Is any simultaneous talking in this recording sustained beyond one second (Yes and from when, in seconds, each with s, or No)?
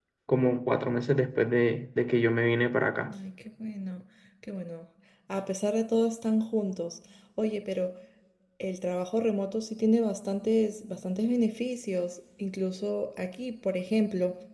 No